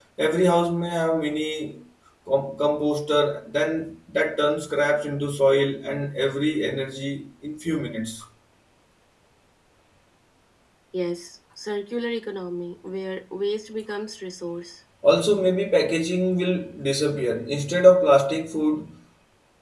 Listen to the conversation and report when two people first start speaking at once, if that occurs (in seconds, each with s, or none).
none